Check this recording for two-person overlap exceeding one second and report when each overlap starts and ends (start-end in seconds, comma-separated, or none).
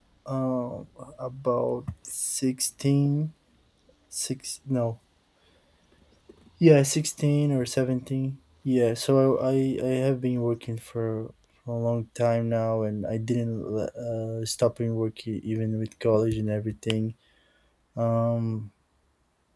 none